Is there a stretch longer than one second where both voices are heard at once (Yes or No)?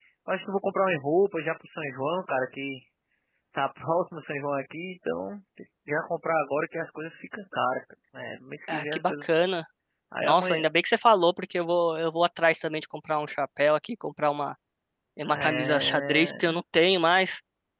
Yes